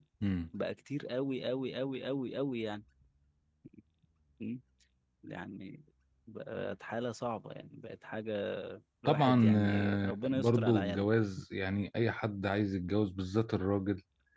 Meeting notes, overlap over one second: present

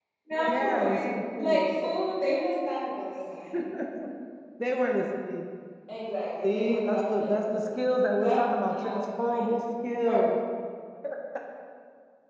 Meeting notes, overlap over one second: present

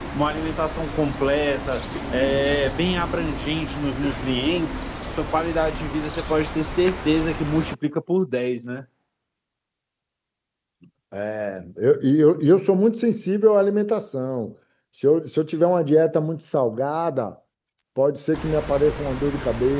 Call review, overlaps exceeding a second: none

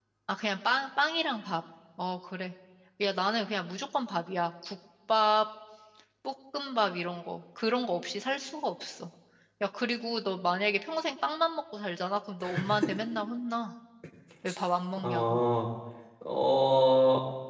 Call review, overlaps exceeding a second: none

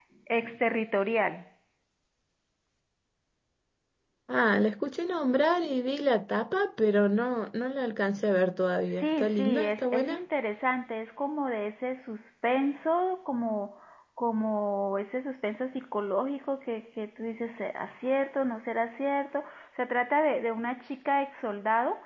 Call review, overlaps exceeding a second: present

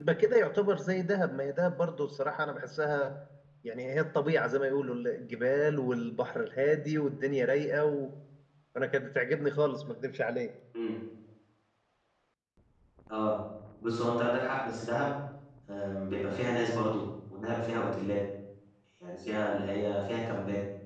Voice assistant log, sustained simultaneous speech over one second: none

